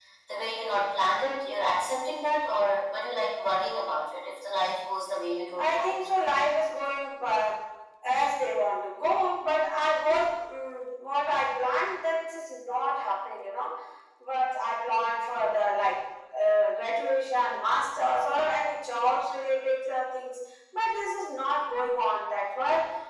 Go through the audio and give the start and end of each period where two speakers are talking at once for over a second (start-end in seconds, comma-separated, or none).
none